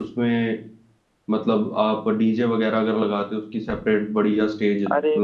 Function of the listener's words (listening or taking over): taking over